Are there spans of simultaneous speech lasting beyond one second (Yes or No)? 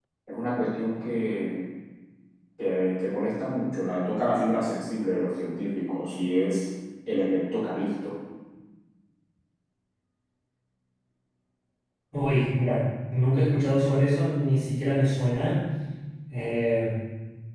No